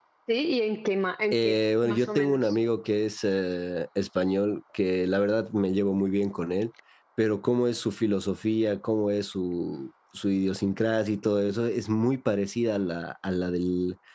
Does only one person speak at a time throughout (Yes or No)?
No